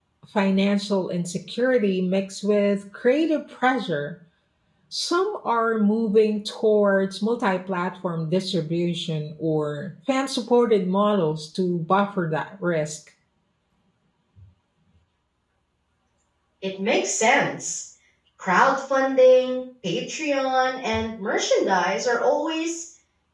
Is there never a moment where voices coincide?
Yes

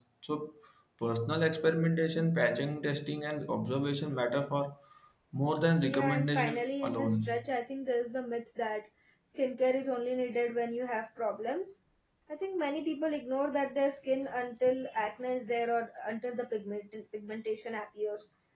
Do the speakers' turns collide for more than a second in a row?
Yes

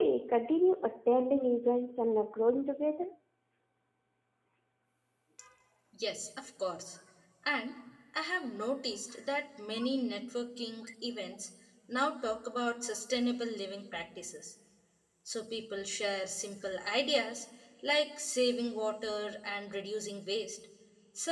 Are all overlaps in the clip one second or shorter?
Yes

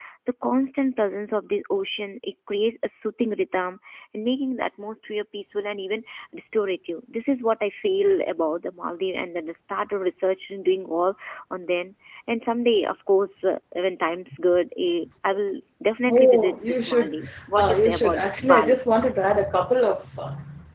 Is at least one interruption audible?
Yes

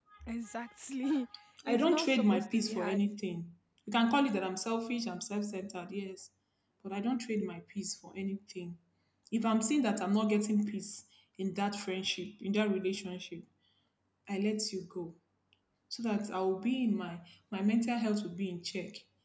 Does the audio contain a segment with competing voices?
Yes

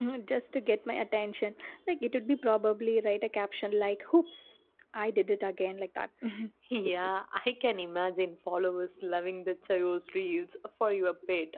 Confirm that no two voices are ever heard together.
Yes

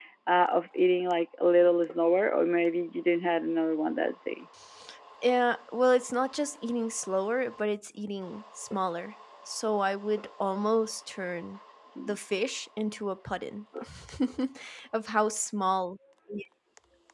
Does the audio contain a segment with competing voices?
No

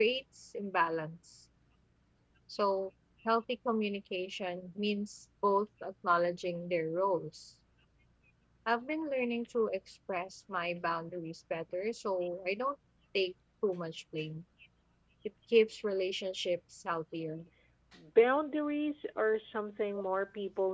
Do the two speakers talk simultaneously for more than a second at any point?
No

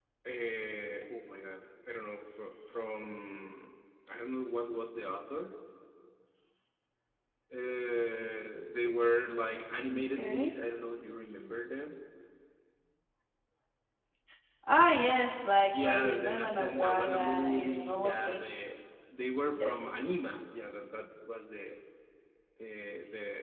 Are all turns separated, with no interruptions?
No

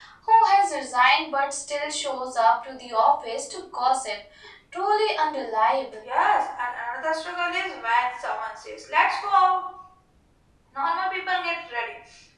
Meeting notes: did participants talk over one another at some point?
No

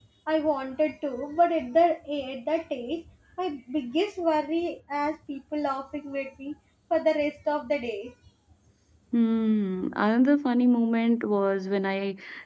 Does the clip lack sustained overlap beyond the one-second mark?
Yes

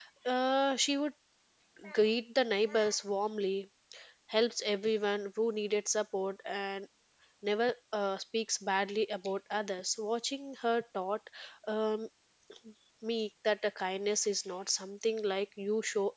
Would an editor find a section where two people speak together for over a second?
No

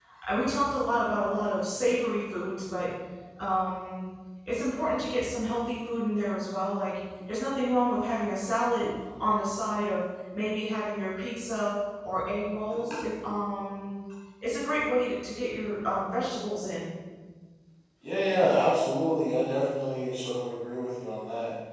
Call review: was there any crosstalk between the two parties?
No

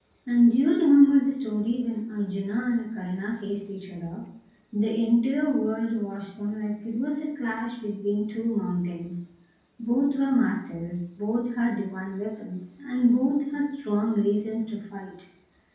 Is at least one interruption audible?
No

